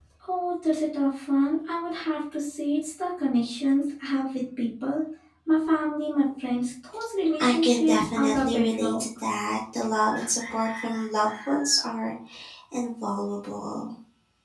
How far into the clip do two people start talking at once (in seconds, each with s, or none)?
7.4 s